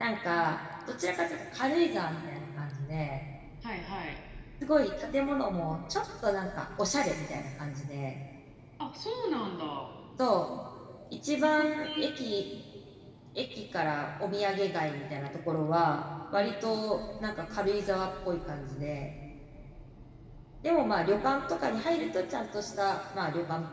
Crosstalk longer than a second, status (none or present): none